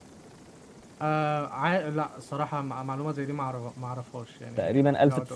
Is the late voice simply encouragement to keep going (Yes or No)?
No